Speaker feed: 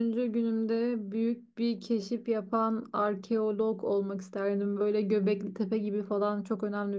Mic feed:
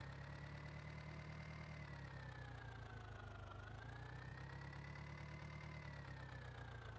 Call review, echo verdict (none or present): none